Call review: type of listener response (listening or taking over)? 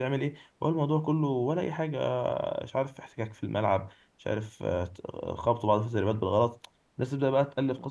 listening